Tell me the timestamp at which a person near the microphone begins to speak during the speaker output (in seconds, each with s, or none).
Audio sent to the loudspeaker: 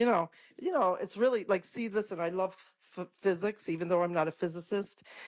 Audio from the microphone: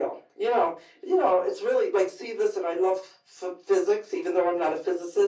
none